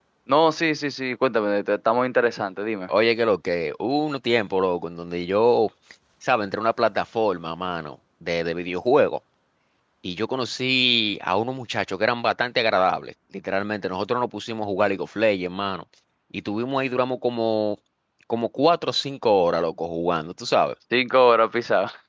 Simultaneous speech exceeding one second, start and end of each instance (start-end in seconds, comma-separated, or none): none